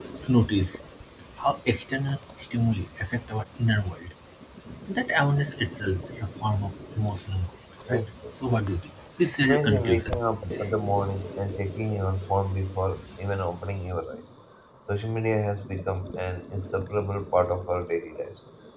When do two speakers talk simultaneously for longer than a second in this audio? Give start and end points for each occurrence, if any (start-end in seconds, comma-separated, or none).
9.4-10.7